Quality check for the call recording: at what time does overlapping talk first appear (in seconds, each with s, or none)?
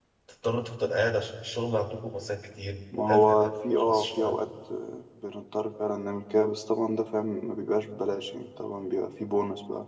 2.9 s